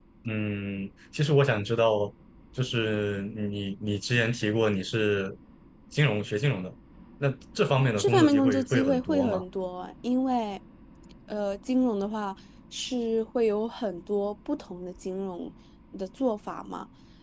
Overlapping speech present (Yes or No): Yes